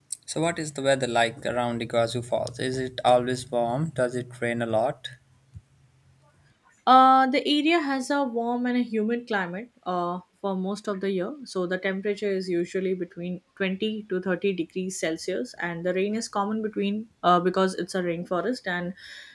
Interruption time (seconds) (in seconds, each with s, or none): none